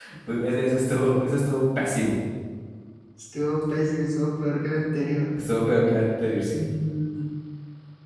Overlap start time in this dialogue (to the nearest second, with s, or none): none